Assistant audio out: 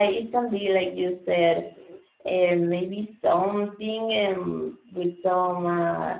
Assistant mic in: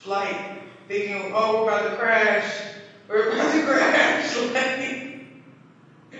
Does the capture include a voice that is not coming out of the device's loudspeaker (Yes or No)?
Yes